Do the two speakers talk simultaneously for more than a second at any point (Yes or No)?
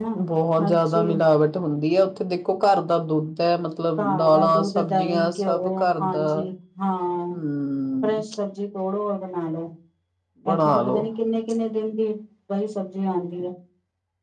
Yes